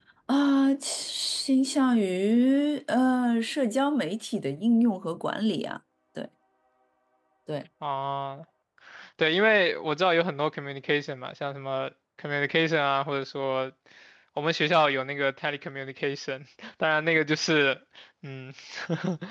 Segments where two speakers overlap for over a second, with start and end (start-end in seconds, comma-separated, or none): none